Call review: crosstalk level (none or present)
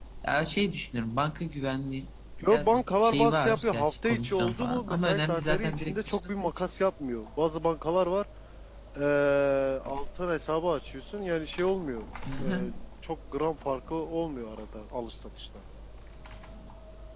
present